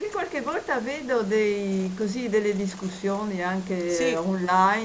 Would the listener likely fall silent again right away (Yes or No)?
Yes